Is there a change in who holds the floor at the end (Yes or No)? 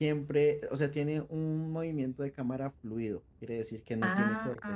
Yes